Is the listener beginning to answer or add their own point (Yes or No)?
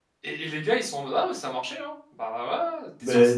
No